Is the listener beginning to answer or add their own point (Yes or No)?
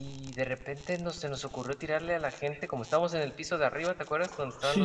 No